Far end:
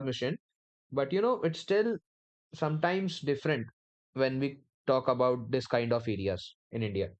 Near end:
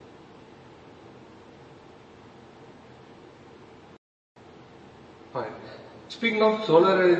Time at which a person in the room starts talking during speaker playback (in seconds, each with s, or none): 5.3 s